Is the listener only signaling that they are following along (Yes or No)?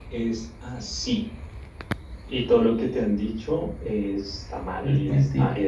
Yes